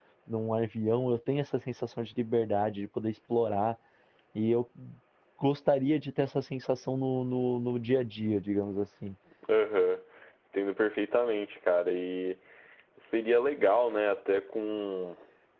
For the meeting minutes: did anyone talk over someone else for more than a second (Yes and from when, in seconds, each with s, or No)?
No